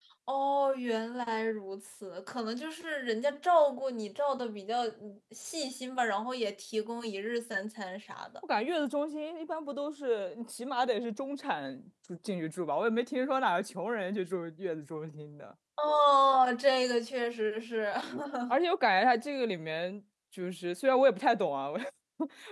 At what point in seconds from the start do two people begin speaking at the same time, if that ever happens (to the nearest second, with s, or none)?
none